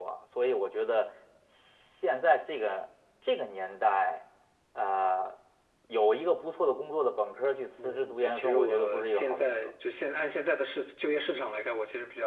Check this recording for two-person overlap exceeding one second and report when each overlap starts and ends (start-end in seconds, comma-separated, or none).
7.8-9.7